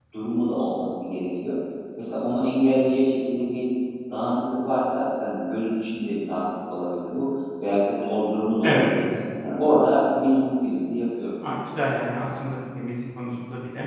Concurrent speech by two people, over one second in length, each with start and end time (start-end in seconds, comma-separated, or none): none